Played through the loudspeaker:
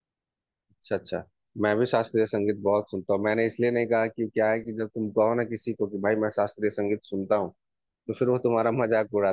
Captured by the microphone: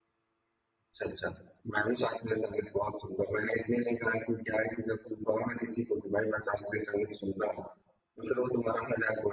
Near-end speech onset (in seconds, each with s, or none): none